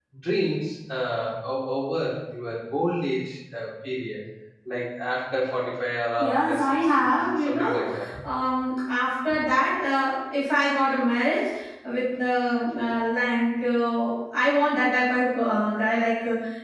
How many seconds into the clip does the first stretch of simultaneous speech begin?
6 s

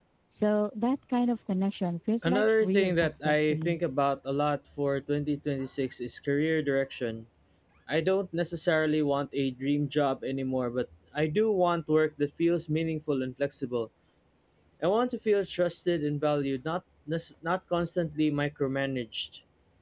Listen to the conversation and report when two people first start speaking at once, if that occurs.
2 s

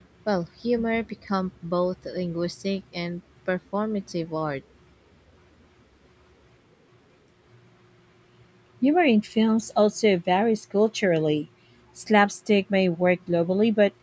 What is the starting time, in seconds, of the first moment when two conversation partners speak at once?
none

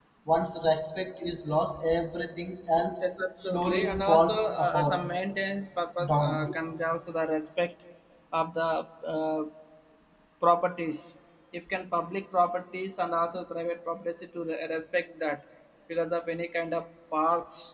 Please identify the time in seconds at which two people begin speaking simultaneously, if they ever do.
3 s

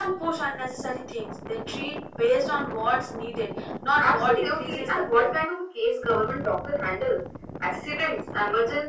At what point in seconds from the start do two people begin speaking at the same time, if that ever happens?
4 s

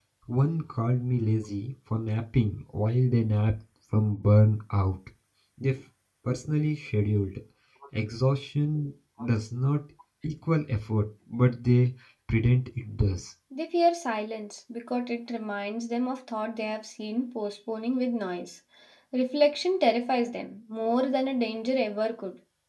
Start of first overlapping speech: none

